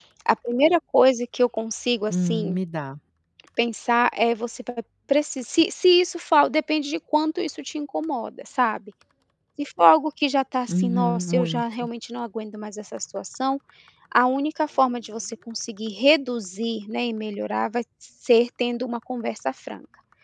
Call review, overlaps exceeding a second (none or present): present